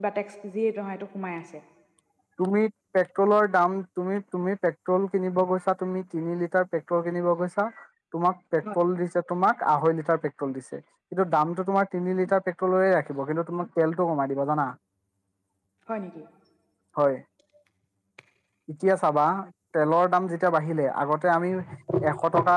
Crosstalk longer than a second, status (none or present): none